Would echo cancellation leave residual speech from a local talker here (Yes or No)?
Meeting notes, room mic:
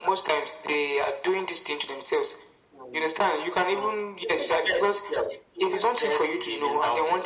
No